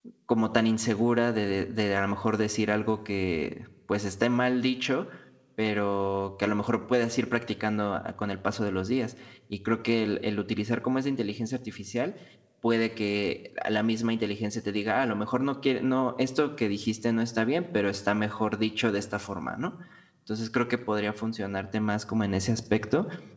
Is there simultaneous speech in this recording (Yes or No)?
No